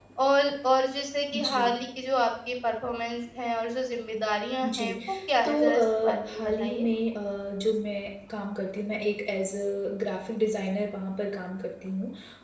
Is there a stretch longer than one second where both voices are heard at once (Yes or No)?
Yes